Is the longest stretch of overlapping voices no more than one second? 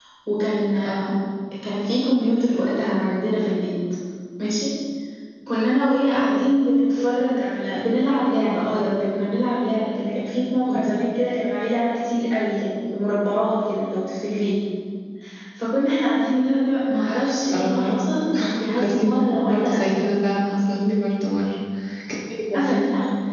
No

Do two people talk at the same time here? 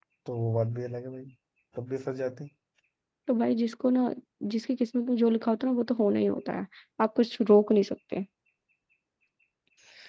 No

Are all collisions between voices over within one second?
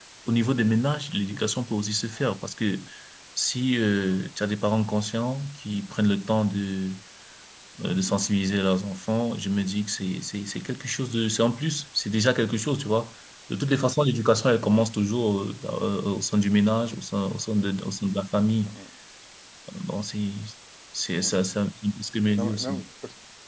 Yes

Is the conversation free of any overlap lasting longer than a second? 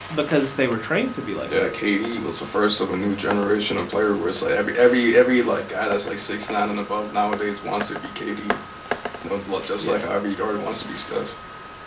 Yes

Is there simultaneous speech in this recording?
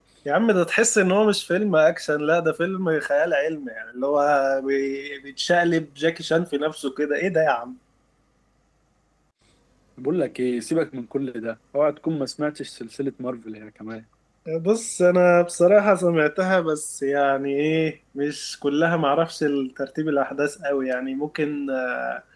No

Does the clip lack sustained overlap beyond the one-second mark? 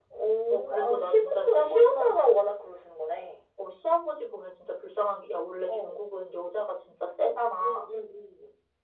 No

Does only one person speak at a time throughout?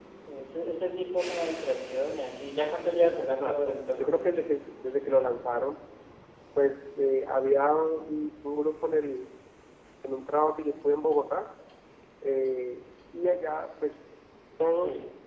No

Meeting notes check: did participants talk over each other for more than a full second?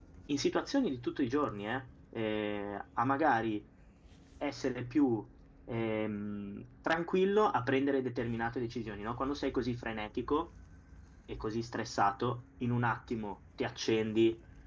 No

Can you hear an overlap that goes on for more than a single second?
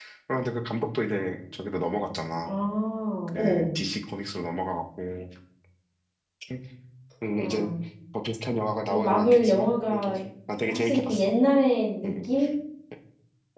Yes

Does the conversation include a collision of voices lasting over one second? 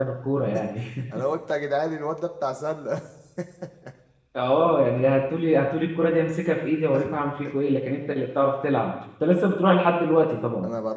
No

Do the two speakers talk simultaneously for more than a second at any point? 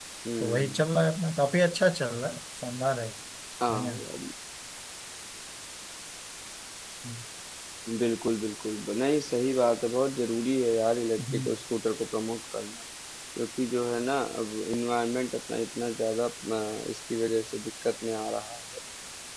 No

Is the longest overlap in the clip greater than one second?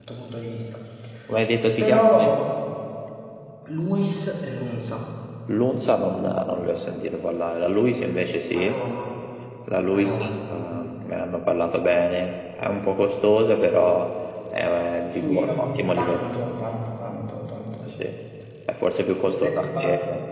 Yes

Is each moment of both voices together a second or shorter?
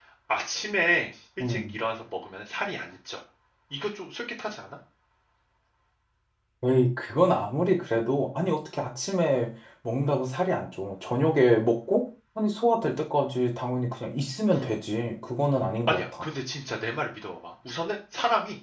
Yes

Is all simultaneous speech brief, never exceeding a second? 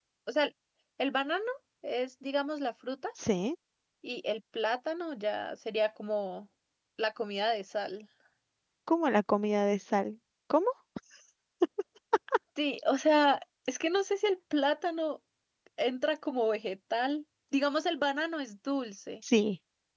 Yes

